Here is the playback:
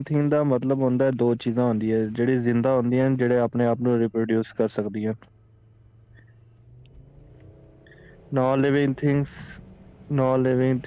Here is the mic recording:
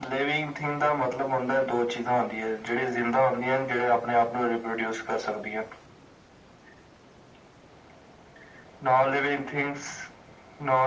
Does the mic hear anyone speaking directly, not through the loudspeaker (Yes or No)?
No